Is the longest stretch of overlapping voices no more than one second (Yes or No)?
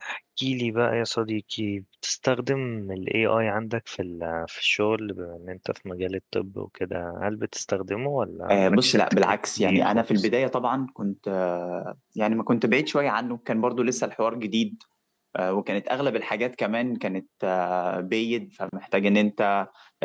No